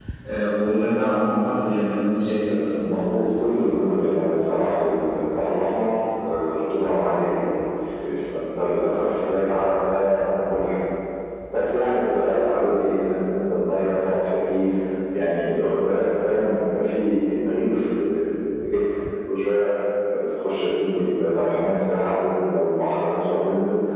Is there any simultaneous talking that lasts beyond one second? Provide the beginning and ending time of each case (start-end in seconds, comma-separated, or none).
none